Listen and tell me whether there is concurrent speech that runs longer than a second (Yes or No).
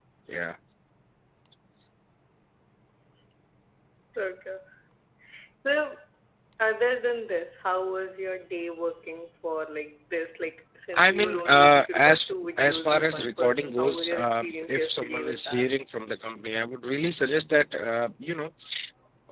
Yes